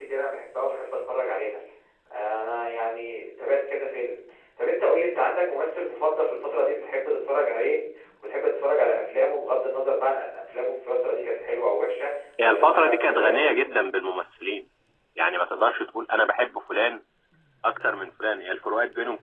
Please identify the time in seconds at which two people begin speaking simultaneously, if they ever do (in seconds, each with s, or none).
12.4 s